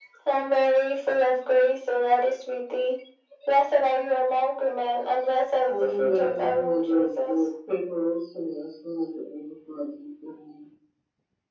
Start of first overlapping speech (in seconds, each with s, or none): 5.7 s